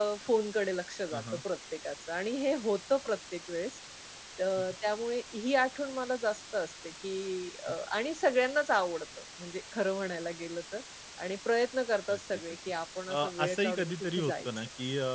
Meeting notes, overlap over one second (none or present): present